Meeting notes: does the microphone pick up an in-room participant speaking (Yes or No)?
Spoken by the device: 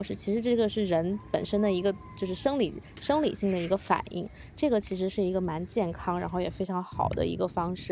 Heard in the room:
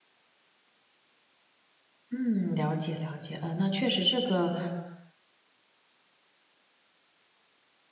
Yes